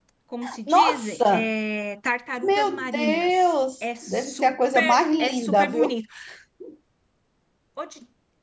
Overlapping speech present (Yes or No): Yes